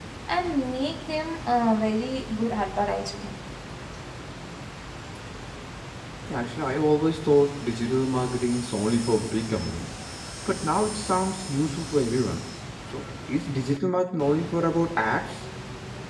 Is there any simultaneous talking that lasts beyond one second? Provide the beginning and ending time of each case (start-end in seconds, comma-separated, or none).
none